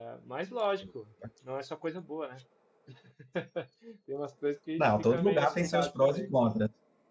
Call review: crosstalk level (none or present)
present